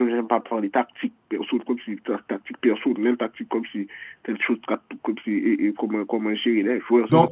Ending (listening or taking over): taking over